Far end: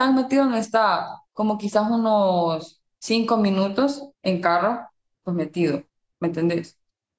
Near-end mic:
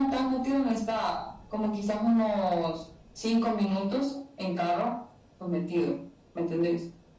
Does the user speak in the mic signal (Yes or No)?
No